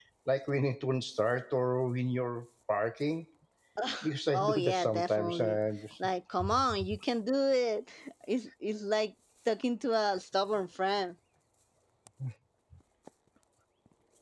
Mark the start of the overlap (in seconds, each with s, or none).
4.3 s